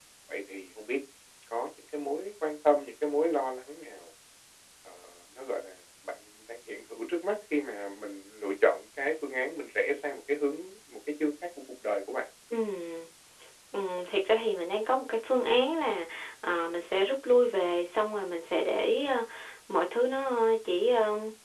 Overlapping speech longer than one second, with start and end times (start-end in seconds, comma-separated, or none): none